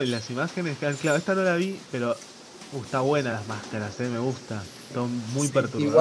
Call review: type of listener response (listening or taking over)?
taking over